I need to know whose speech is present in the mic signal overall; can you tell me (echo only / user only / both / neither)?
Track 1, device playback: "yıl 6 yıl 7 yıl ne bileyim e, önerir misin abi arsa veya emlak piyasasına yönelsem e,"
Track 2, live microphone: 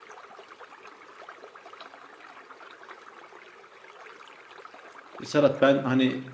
user only